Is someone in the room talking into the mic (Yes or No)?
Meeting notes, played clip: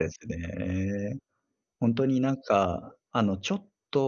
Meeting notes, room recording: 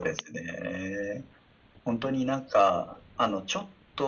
No